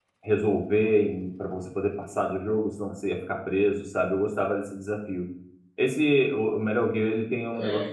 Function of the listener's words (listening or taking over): listening